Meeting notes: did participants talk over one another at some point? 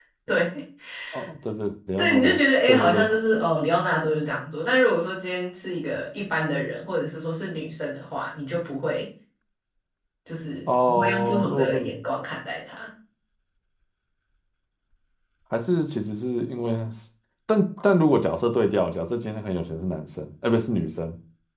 Yes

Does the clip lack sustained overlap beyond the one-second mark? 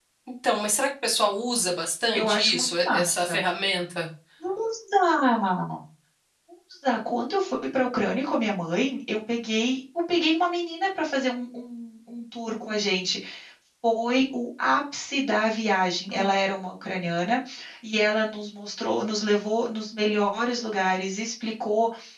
No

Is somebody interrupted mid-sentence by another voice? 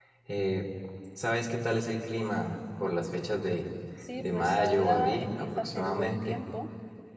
Yes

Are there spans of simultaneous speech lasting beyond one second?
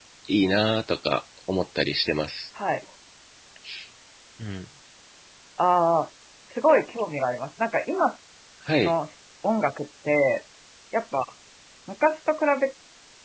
No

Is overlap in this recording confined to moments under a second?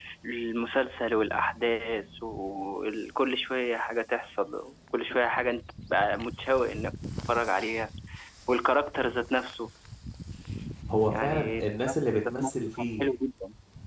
No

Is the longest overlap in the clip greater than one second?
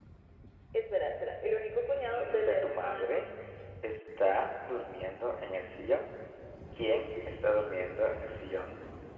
Yes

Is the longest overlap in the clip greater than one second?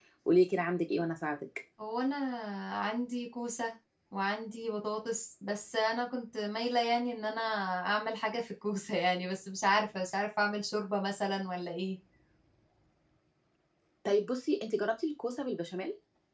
No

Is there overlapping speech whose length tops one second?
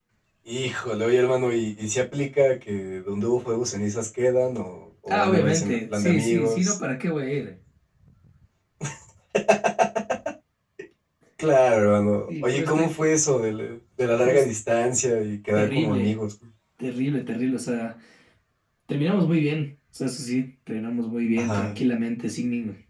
Yes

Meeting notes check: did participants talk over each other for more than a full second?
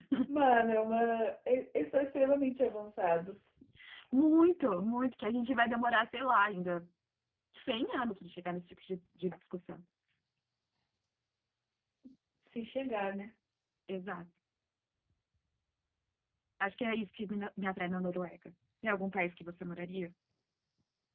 No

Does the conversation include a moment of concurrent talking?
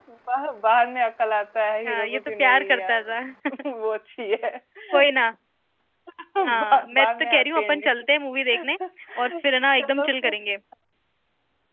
Yes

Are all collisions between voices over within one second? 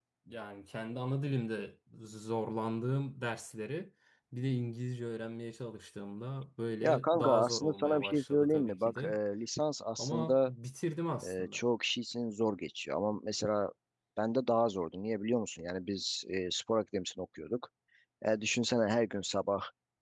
No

